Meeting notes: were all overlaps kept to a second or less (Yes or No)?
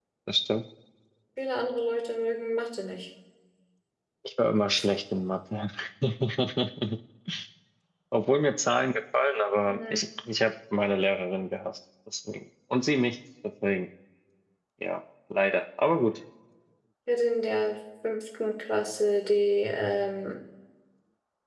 Yes